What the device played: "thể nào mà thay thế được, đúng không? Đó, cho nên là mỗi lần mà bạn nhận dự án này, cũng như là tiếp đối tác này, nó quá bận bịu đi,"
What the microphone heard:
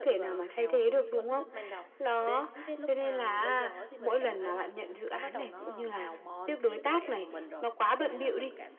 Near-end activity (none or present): present